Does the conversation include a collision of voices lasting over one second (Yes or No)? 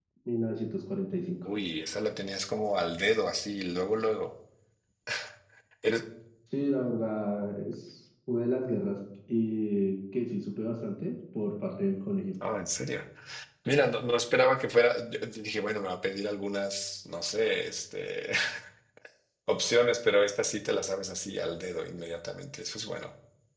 No